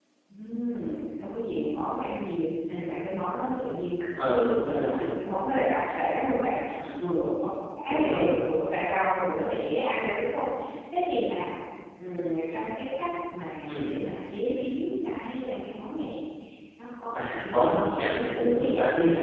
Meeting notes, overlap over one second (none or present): present